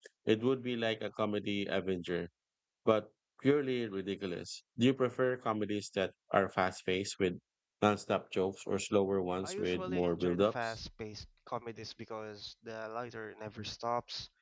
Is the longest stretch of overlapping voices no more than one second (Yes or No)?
No